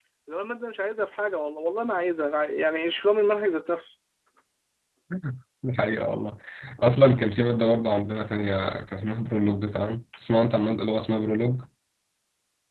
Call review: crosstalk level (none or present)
none